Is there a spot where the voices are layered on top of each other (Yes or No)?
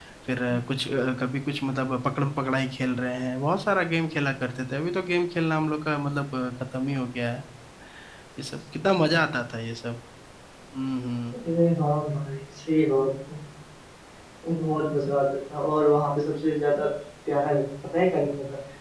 No